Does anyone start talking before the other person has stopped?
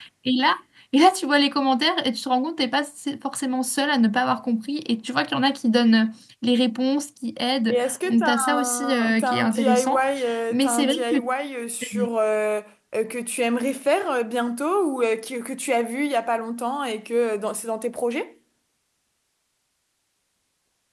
Yes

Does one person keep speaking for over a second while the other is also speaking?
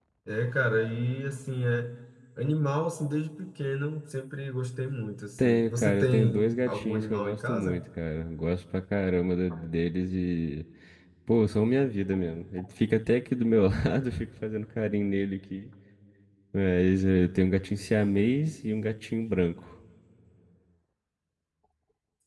Yes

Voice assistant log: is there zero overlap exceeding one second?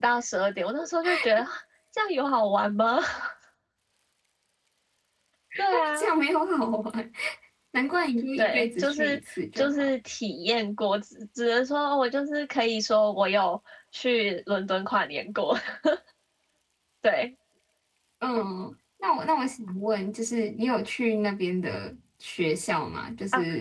No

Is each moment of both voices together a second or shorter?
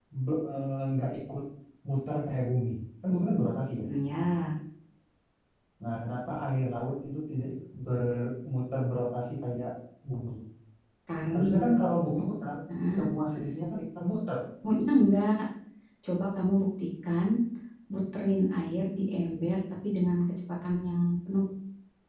Yes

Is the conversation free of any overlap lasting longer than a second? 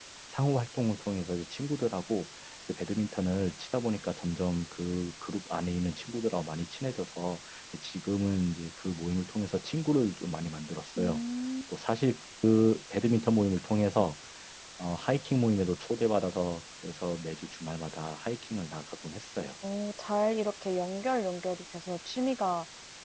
Yes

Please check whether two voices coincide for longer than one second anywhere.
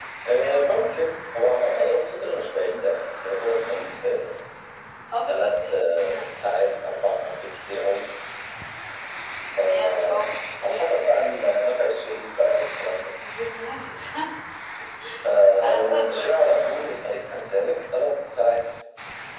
Yes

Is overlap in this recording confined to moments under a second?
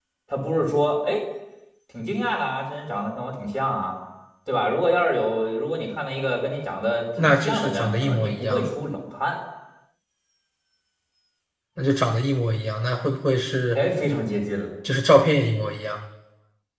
No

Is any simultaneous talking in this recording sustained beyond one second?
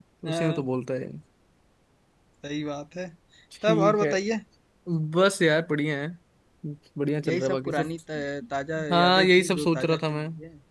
Yes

